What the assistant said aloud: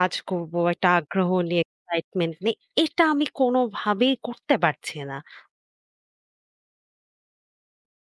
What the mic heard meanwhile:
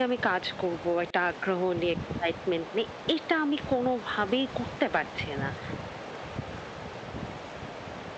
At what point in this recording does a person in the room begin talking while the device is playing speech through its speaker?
none

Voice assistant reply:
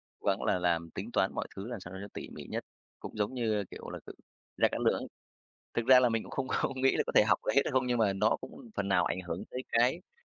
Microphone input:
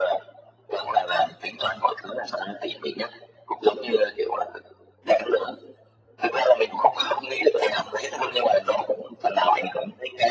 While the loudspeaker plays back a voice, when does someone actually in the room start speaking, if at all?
none

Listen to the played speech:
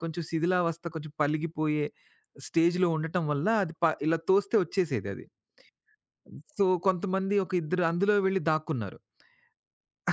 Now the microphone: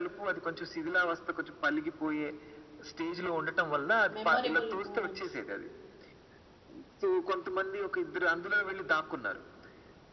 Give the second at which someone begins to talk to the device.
4.2 s

